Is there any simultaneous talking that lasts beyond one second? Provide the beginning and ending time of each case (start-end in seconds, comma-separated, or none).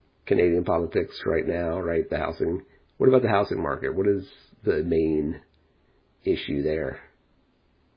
none